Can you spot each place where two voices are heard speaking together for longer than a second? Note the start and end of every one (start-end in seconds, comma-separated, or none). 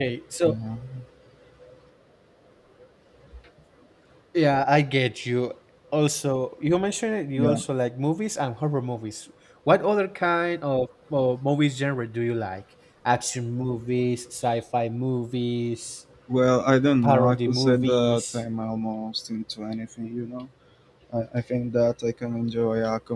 17.0-18.4